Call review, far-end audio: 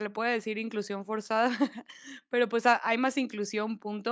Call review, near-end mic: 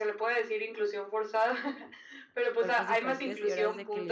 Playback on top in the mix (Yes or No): Yes